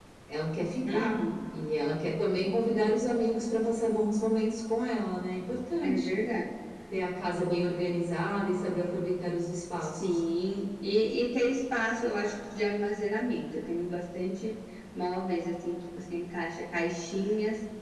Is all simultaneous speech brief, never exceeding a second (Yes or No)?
Yes